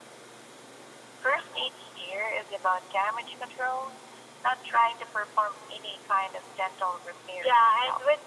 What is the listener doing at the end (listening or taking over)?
taking over